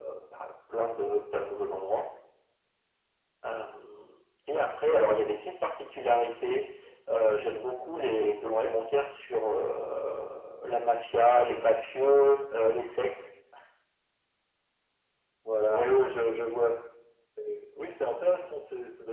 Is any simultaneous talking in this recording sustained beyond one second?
No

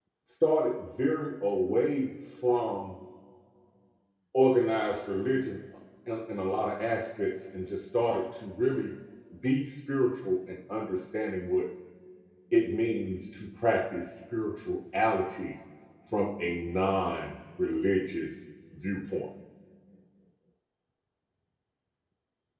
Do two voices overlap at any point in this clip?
No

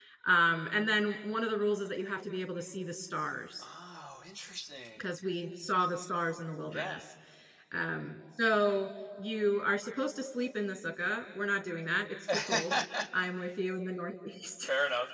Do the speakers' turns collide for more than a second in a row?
No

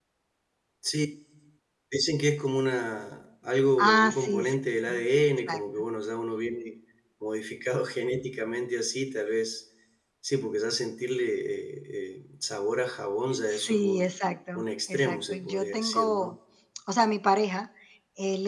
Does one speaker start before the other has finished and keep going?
Yes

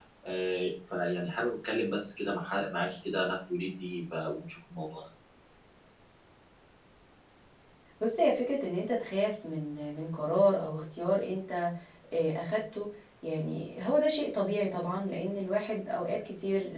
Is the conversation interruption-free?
Yes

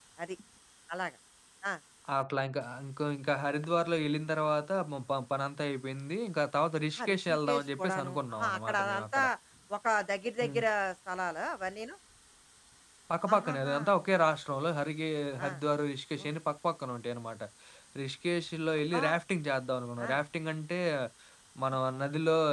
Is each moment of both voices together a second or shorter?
No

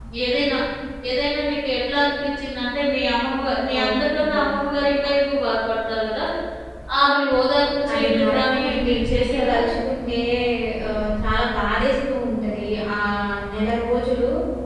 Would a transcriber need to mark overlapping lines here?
Yes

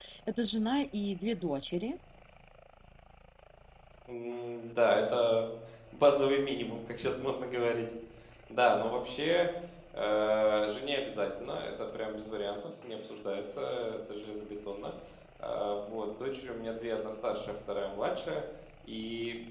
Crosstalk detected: No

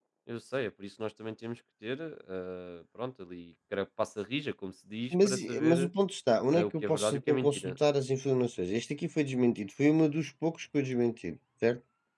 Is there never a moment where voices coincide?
No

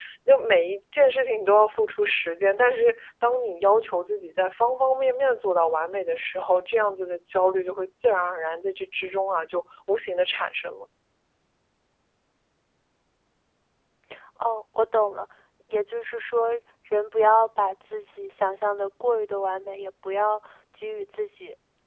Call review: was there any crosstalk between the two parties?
No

